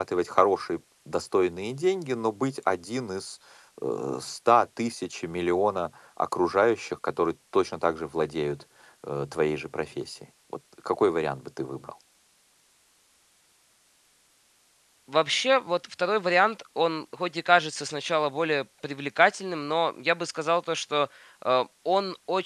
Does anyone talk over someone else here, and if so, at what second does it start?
none

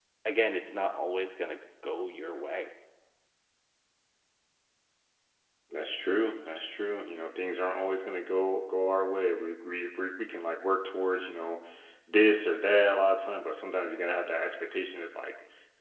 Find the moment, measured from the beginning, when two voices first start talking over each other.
none

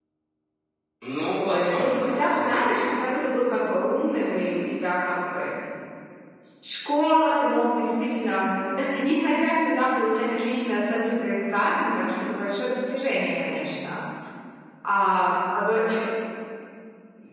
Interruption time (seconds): 1 s

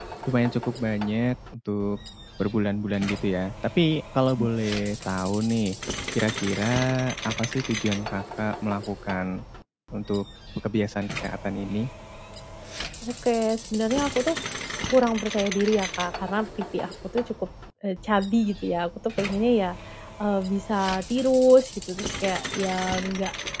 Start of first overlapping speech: none

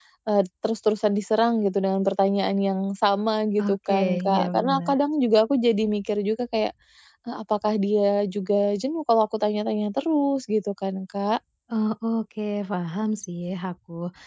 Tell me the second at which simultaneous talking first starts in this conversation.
4 s

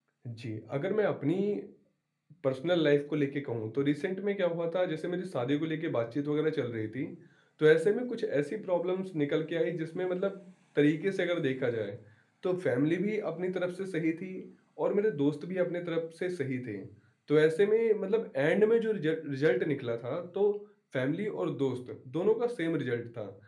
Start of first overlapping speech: none

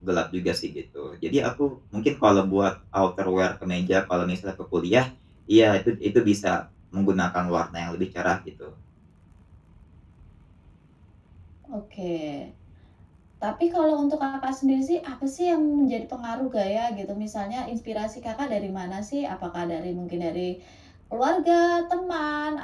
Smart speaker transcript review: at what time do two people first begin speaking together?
none

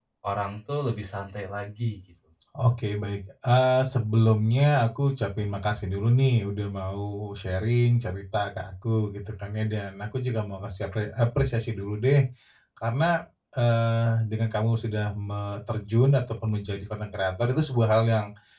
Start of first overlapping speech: none

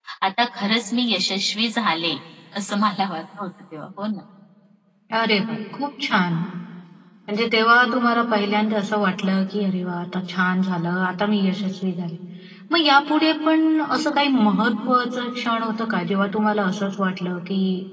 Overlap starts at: none

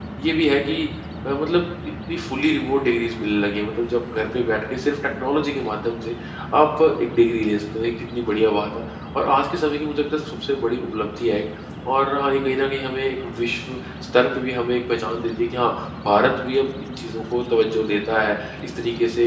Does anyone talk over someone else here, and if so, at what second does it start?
none

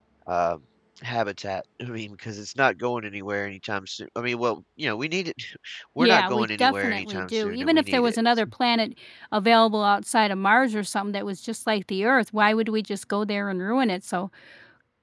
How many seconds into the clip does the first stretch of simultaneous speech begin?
6 s

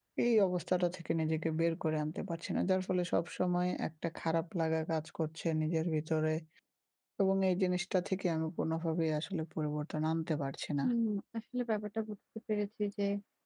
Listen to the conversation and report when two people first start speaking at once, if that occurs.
none

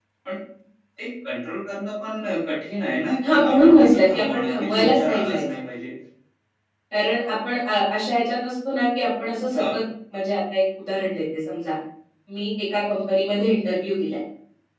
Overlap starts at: 3 s

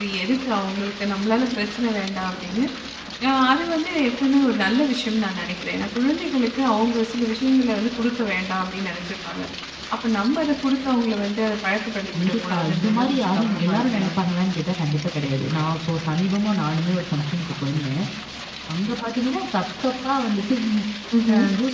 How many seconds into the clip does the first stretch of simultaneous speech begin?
12 s

